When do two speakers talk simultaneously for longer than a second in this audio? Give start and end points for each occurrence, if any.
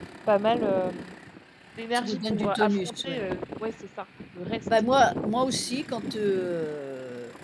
1.9-3.2

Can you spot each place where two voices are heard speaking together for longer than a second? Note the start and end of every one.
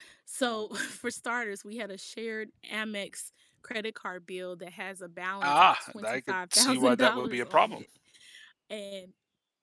5.4-7.8

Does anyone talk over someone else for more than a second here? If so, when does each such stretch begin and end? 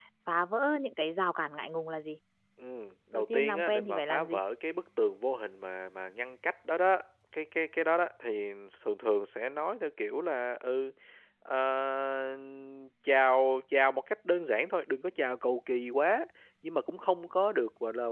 3.1-4.4

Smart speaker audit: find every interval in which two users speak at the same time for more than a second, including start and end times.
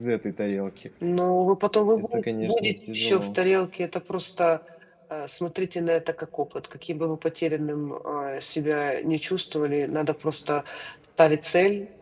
2.0-3.4

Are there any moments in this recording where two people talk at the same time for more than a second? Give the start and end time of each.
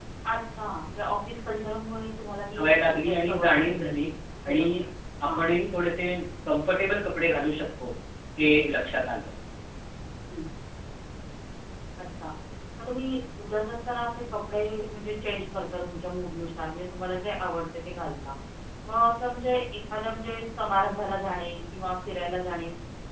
2.5-4.0

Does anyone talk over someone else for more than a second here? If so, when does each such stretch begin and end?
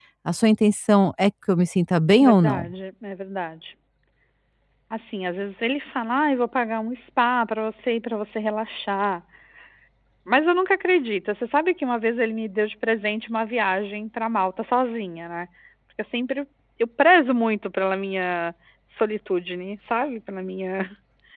none

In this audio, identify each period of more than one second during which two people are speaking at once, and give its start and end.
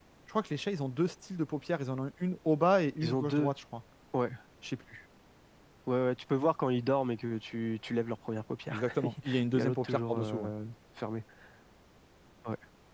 8.7-10.5

